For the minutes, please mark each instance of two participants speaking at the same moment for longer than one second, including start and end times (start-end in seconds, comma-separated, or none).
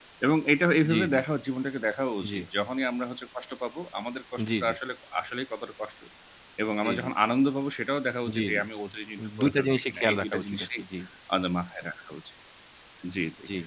9.4-10.7